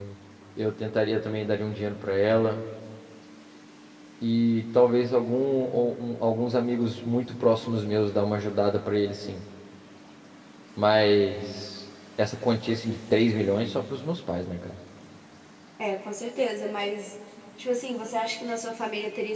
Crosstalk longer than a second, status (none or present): none